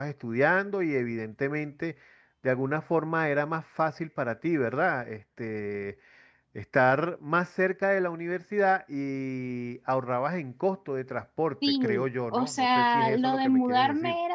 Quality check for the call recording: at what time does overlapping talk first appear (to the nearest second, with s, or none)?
12 s